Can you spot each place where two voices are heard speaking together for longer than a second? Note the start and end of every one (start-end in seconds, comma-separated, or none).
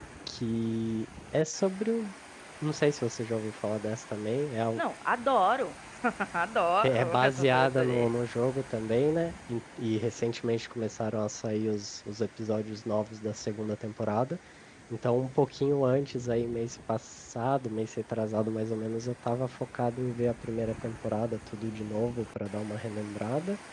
6.8-8.1